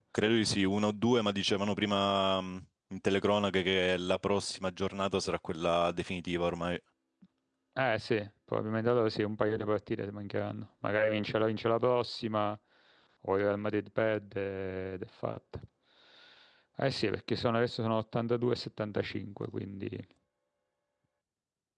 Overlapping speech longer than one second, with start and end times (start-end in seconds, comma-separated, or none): none